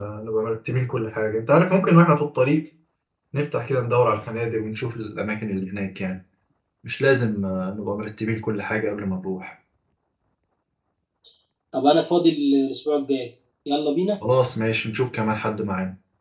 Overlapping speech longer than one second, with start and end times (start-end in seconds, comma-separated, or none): none